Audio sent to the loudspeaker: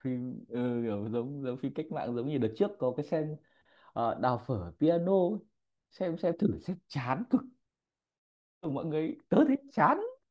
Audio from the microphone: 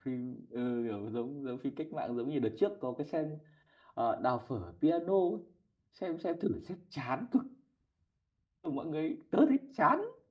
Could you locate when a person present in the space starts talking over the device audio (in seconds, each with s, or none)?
none